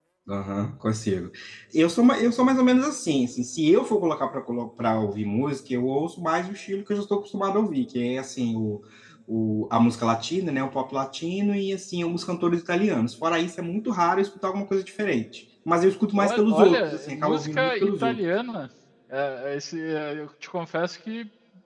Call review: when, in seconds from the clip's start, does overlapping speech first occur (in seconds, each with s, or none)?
16.1 s